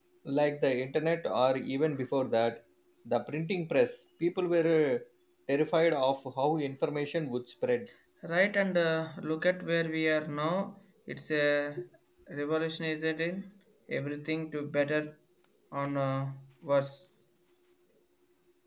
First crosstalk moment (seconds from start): none

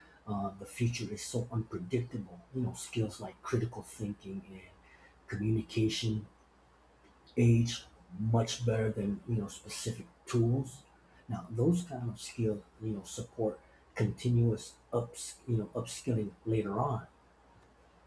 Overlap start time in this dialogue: none

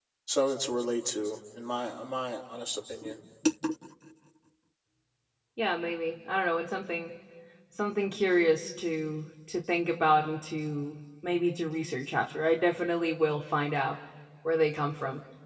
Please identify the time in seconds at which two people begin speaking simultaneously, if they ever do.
none

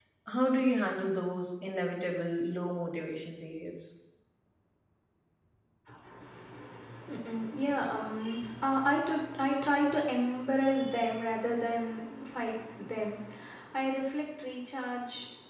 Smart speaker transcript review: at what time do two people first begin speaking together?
none

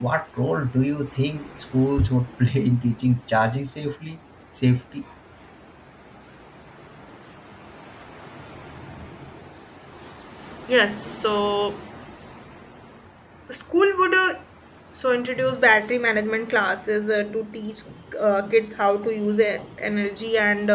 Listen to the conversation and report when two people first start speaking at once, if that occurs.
none

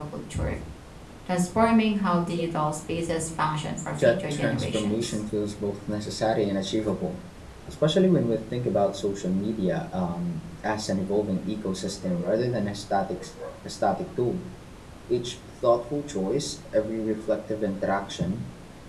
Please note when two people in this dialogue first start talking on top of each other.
4.0 s

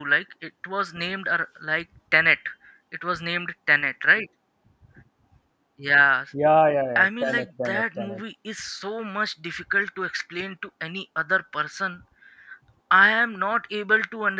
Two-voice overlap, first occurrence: 7.0 s

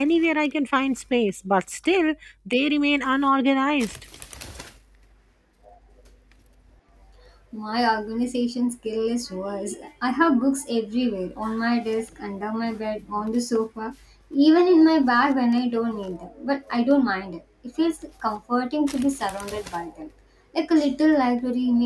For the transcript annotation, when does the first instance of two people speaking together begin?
none

